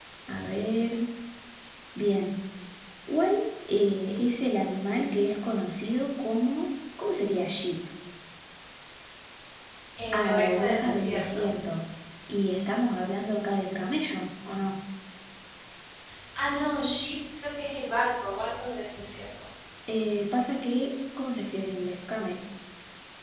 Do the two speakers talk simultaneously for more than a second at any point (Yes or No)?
Yes